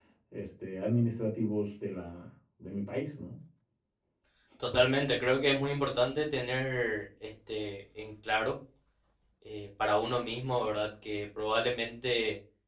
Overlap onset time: none

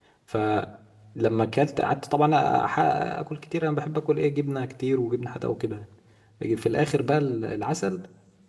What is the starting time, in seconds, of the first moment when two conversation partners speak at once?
none

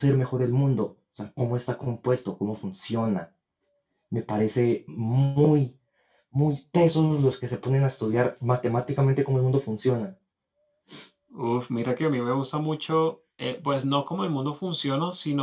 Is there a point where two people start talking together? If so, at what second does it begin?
none

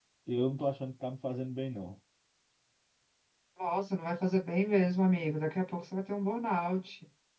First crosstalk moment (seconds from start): none

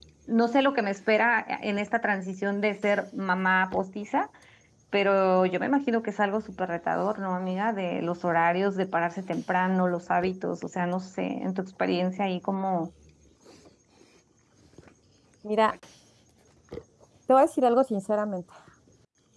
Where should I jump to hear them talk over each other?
none

